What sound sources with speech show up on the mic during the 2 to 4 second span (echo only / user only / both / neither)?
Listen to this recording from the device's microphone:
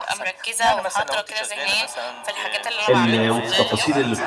both